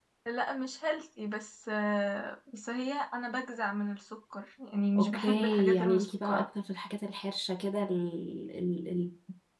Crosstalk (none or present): present